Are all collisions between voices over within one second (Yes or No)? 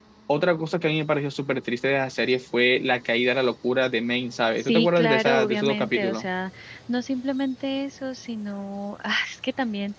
No